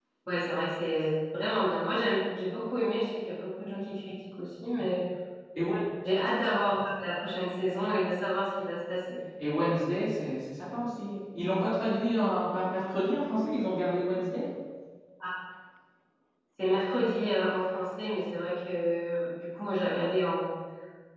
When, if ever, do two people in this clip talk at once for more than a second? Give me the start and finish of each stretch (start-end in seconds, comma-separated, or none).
none